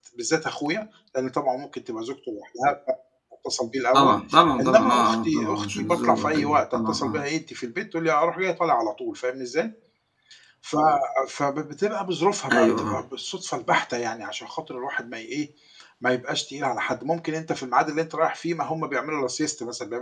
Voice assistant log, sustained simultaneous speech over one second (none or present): present